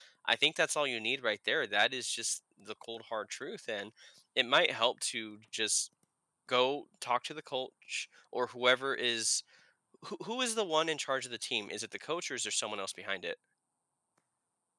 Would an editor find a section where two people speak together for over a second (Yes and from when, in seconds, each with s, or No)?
No